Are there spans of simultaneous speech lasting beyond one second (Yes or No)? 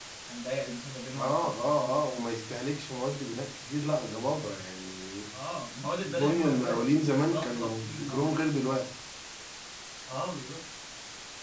Yes